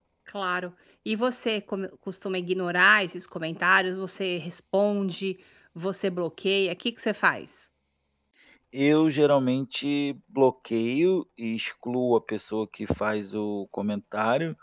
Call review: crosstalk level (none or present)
none